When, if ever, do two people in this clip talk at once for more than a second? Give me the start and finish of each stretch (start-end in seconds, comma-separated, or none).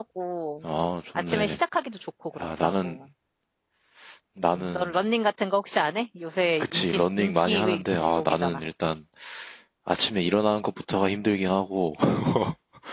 6.6-8.6